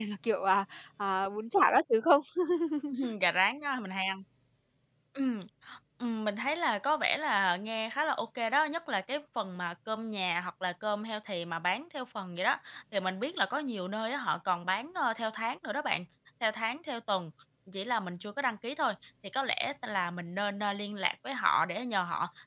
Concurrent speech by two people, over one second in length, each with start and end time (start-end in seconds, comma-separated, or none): none